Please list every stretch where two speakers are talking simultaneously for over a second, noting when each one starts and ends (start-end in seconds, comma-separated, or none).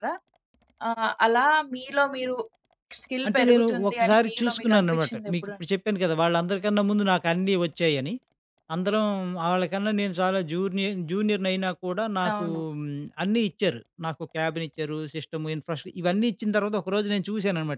3.3-5.5